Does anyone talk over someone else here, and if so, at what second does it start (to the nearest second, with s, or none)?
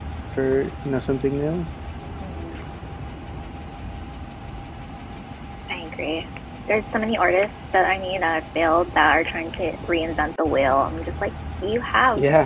none